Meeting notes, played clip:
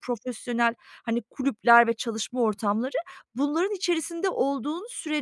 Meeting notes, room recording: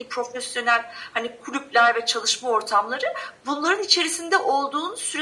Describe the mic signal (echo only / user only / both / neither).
echo only